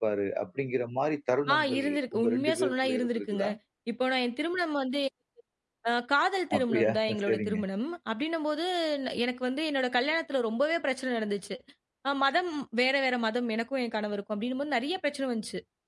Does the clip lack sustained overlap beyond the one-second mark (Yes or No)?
No